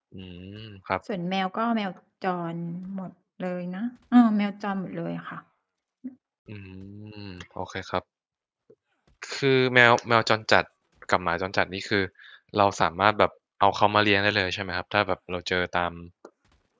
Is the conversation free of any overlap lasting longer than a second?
Yes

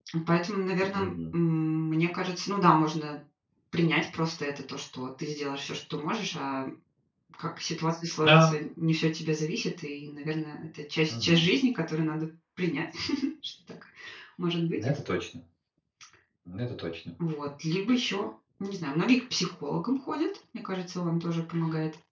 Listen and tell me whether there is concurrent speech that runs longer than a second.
No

